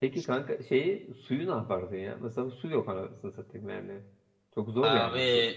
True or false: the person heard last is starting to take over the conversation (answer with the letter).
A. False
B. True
B